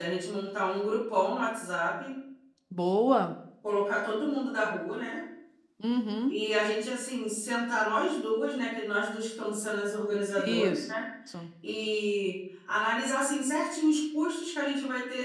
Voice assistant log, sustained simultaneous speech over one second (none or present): none